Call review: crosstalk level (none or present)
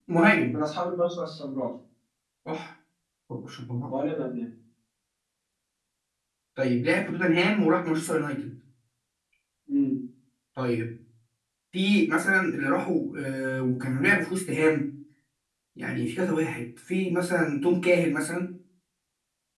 none